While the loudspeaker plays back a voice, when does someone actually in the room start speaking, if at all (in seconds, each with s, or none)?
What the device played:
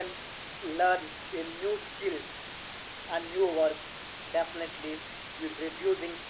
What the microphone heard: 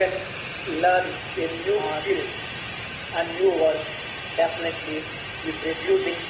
1.7 s